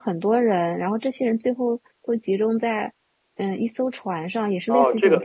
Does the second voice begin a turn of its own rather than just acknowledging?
Yes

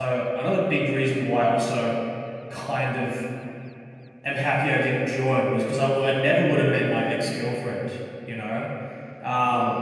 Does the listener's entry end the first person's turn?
No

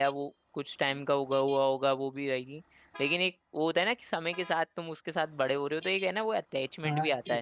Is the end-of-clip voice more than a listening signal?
Yes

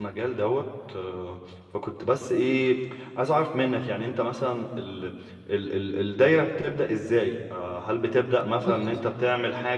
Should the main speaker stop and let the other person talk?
No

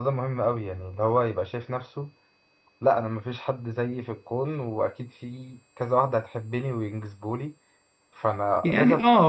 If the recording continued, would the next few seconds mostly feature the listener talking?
Yes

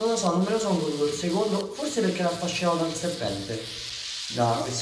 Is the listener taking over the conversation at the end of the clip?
No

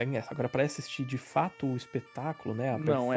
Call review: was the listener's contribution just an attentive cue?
No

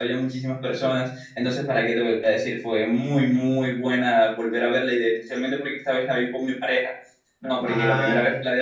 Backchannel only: Yes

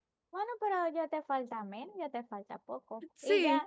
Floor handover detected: No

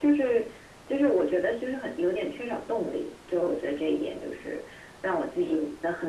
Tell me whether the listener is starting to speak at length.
No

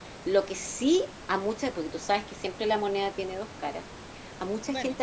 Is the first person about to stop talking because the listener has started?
No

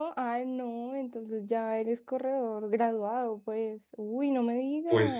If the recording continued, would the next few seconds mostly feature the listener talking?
Yes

